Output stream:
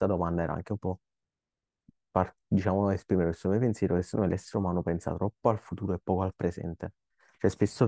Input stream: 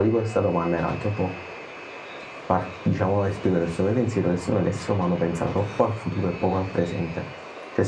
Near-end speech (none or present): none